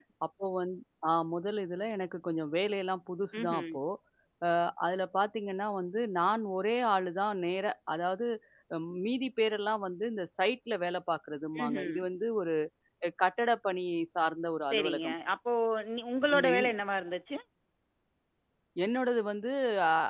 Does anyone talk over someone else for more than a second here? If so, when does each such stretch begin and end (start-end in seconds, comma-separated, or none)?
none